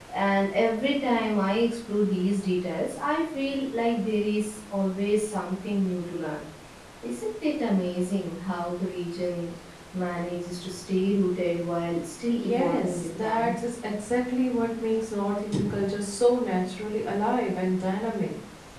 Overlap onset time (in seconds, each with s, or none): 12.3 s